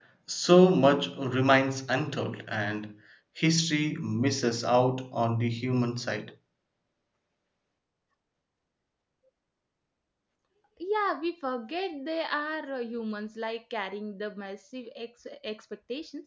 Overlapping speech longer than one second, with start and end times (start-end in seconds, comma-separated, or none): none